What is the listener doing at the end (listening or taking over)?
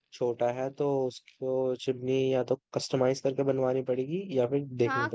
taking over